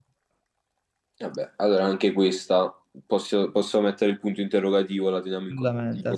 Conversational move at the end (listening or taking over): taking over